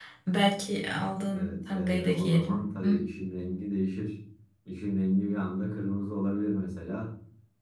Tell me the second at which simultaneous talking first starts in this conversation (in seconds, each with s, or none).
1.3 s